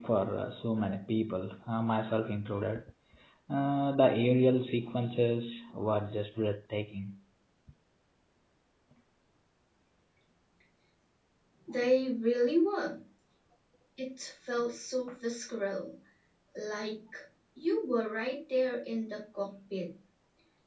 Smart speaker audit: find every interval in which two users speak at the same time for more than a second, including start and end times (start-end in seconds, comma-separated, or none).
none